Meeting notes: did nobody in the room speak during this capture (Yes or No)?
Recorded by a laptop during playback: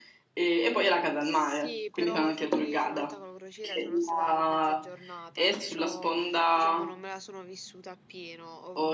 No